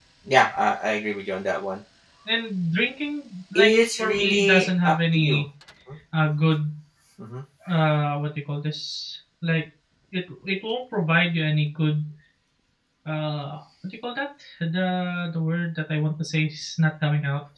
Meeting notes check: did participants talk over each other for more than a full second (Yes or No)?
Yes